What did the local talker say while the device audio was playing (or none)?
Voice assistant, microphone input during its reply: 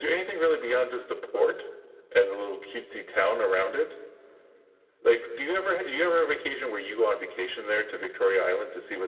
none